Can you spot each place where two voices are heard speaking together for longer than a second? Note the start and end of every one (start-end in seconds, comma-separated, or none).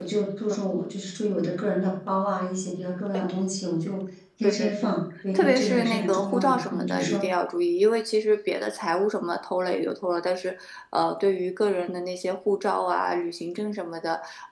5.3-7.2